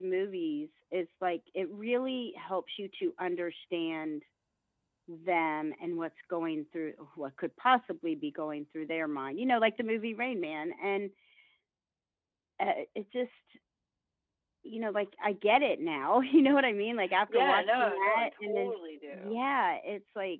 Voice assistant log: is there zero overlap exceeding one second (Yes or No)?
No